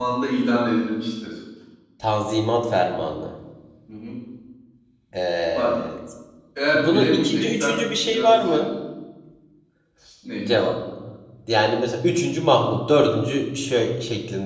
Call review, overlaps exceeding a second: present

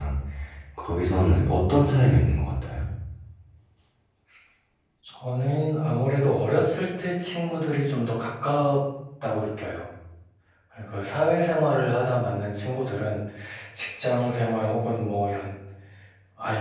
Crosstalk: none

